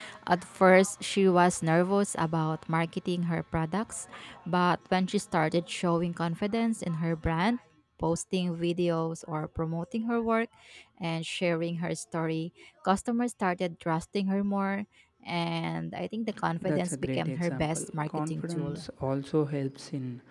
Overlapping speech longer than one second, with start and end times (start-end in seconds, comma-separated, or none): 16.6-18.8